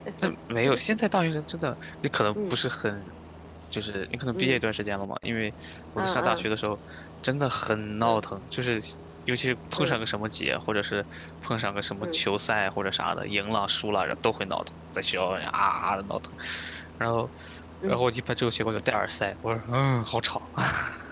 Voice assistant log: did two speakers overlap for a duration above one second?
No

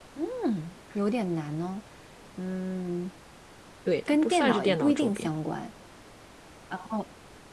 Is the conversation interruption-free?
No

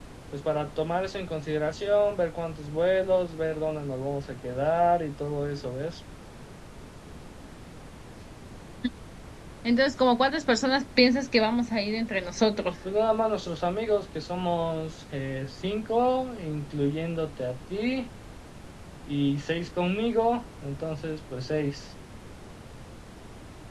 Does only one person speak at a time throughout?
Yes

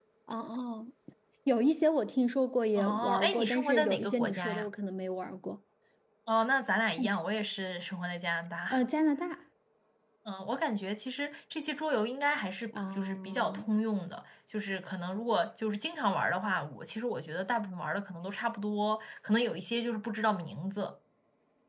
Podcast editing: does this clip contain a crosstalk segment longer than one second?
Yes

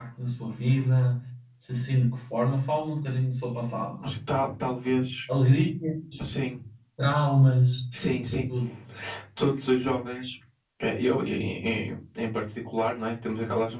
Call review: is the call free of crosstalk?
Yes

